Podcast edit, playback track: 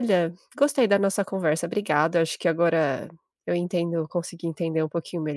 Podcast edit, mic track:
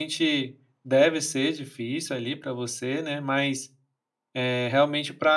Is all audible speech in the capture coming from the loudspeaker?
No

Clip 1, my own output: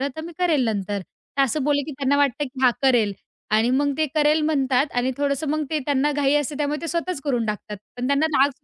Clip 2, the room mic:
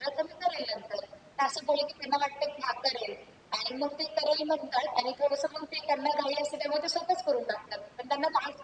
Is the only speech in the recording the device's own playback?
Yes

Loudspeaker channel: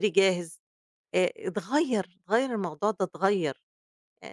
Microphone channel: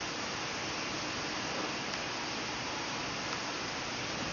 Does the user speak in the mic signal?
No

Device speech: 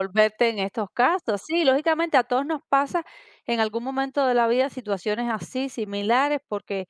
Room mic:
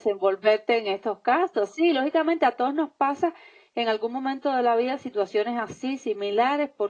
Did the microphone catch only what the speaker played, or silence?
Yes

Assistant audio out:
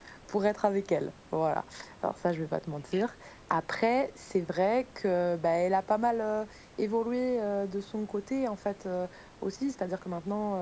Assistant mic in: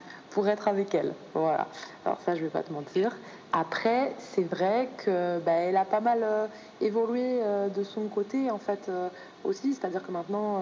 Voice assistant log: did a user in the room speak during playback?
No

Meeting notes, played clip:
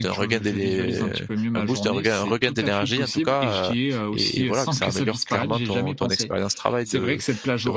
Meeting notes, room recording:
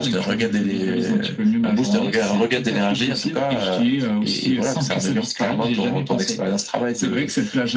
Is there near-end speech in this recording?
No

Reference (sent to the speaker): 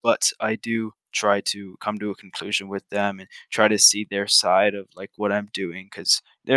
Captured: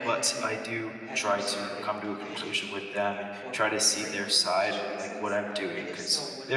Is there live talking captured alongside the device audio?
Yes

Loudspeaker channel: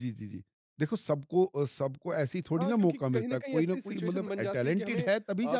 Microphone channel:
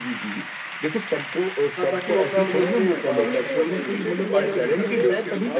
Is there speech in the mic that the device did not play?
Yes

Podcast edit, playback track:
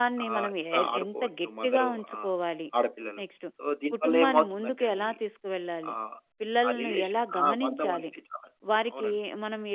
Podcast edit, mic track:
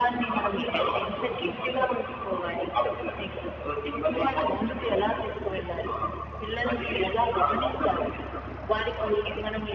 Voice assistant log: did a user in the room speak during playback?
No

